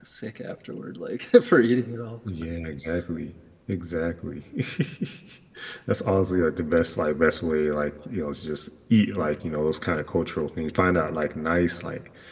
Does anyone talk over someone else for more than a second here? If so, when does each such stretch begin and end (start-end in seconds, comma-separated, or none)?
none